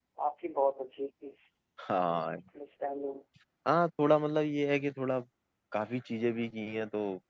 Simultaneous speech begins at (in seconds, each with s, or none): none